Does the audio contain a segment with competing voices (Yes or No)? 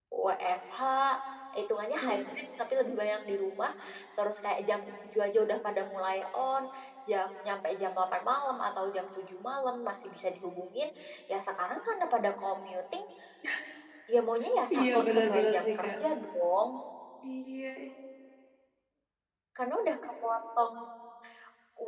Yes